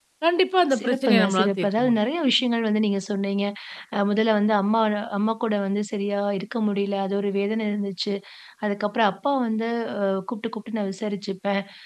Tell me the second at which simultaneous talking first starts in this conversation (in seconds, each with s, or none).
0.8 s